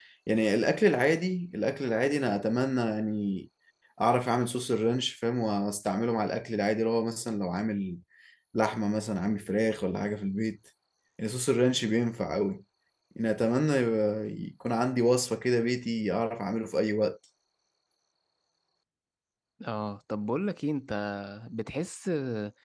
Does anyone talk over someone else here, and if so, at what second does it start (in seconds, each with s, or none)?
none